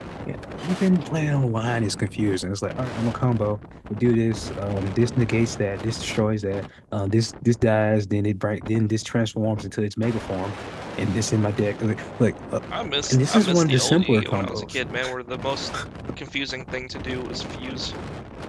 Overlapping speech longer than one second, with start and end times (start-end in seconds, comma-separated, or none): 13.1-14.8